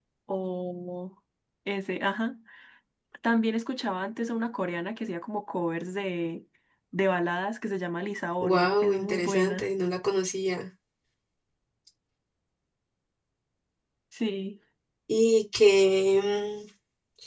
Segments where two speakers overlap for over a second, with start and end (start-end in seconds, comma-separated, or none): 8.4-9.7